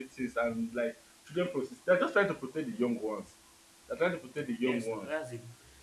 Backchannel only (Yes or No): No